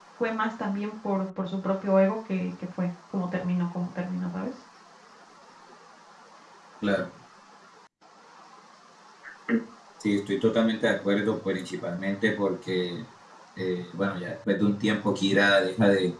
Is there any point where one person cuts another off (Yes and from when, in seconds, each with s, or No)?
No